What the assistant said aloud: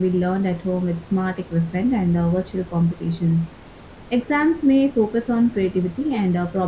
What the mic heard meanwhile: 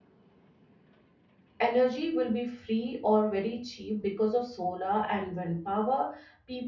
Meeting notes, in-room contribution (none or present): present